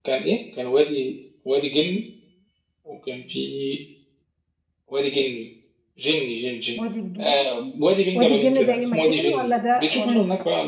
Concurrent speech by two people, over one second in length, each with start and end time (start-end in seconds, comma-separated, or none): 8.1-10.2